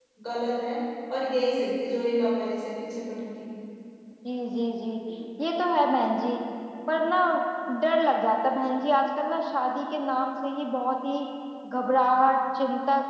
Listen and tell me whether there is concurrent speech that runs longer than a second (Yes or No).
No